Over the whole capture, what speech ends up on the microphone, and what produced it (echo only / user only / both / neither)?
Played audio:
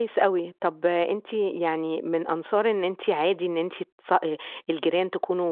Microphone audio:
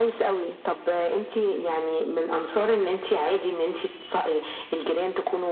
echo only